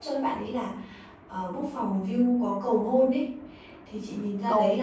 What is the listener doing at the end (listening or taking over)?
listening